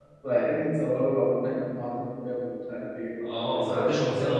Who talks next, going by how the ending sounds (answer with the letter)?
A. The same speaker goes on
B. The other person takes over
B